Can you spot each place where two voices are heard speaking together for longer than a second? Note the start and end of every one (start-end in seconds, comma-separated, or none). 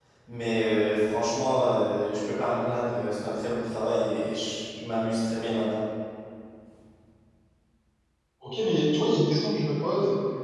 none